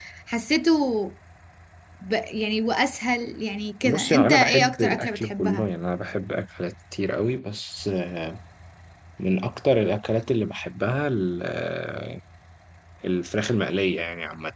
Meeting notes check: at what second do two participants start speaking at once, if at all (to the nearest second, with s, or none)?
4 s